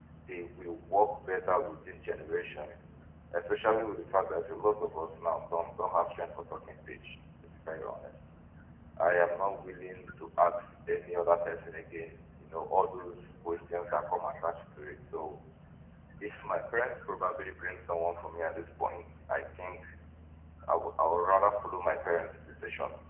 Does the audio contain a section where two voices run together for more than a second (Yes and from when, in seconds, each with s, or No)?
No